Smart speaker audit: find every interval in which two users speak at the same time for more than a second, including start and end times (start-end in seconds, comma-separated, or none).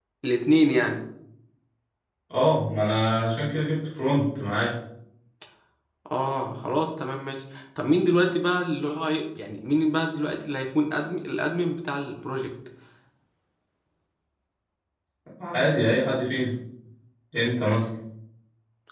none